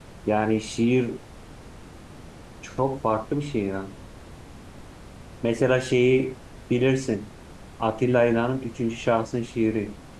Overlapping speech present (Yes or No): No